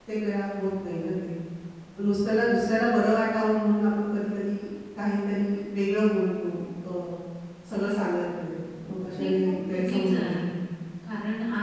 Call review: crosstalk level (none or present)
present